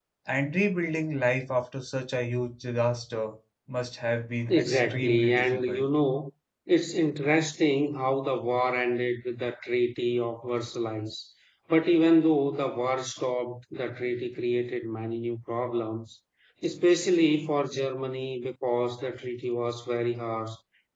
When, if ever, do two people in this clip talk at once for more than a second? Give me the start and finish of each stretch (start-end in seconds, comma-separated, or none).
4.5-5.9